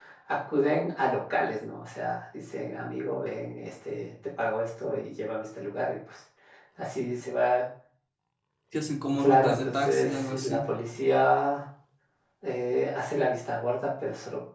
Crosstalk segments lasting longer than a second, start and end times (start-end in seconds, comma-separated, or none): 9.2-10.6